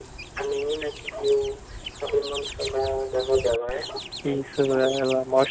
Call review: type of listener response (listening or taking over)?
taking over